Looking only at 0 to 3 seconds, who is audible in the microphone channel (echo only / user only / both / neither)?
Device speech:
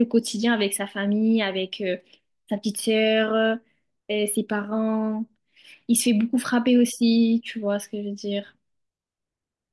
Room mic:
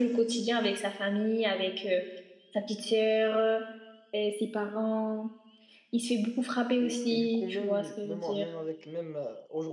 echo only